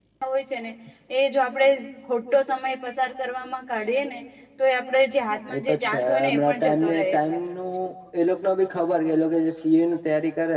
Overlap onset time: 5.5 s

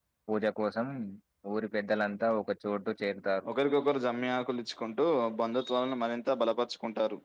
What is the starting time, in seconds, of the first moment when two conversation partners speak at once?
none

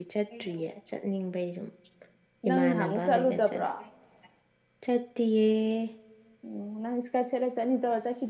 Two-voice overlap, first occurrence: 2.5 s

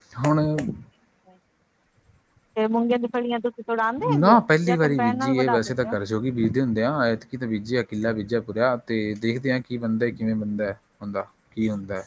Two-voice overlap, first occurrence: 4.0 s

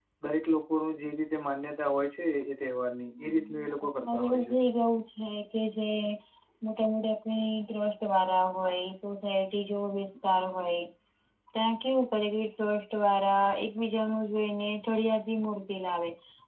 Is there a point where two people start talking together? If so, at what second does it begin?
3.1 s

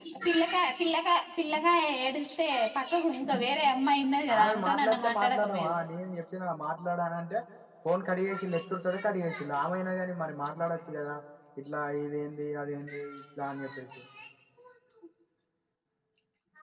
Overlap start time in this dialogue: 4.4 s

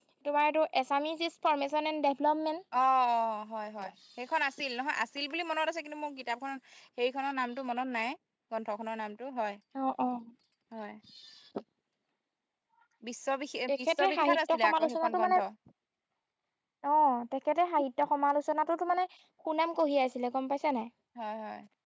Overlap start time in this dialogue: 13.7 s

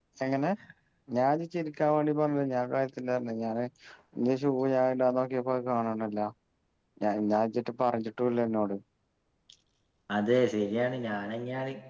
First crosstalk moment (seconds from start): none

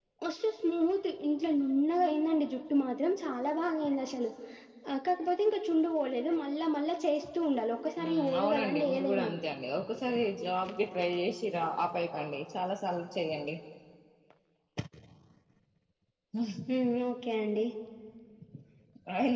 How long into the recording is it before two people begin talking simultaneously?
8.0 s

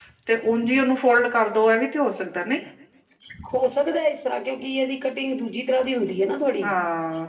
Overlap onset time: none

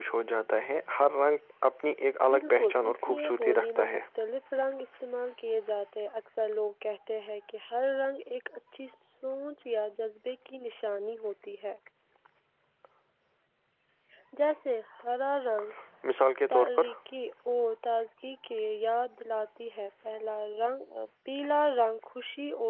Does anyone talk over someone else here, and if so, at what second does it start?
2.3 s

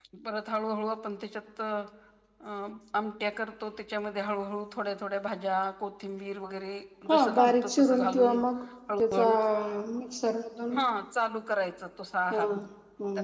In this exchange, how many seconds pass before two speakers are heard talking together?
7.1 s

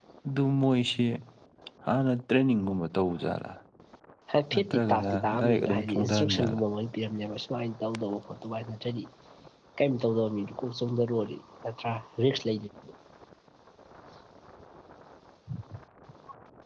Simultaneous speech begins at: 4.5 s

